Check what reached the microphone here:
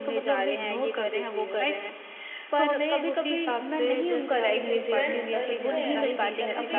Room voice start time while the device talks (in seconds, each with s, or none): 4.4 s